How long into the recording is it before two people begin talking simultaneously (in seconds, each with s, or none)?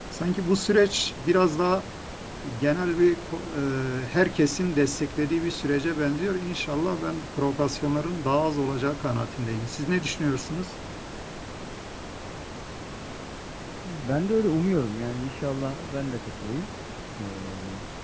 none